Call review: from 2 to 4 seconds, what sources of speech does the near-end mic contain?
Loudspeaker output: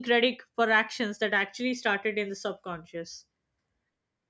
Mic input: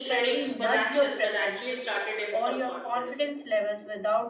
both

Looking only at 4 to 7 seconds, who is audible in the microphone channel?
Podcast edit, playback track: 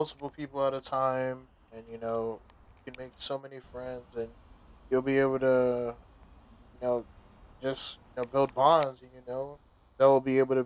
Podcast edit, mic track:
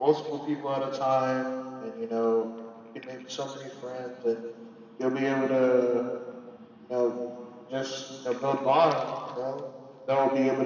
echo only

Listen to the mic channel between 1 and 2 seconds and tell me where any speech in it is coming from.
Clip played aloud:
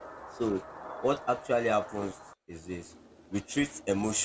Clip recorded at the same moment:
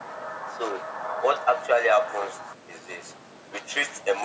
echo only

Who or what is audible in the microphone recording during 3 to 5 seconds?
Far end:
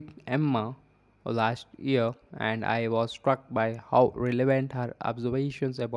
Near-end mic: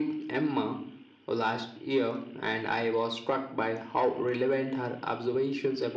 echo only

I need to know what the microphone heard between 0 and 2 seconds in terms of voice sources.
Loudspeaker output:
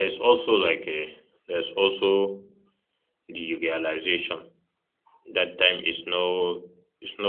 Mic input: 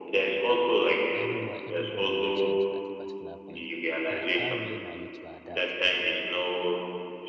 both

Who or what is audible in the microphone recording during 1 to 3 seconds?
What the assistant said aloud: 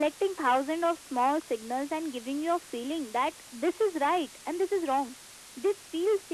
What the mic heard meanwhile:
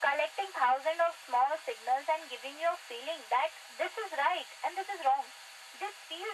echo only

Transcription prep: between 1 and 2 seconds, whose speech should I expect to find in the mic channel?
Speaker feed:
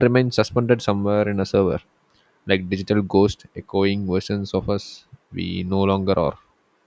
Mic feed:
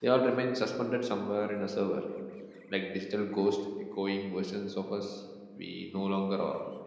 echo only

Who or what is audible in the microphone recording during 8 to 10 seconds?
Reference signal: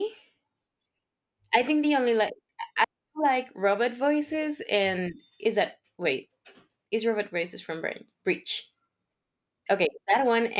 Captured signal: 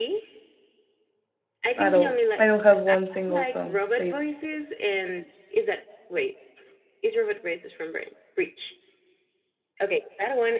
echo only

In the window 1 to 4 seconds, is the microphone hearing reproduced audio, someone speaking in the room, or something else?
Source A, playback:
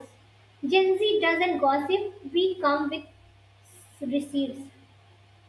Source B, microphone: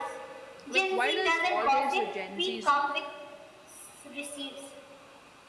both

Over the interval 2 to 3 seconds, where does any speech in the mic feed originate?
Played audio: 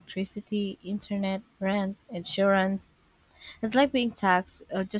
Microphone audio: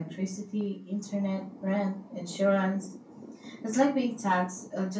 echo only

